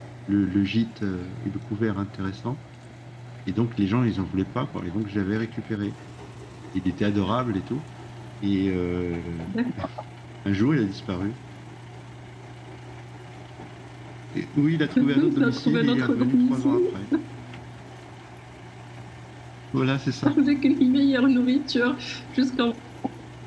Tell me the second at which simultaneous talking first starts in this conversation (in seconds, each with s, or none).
15.0 s